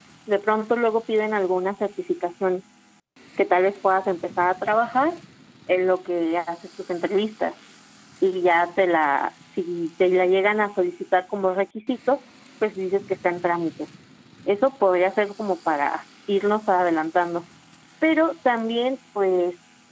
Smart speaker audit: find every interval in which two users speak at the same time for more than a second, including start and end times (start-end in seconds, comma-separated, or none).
none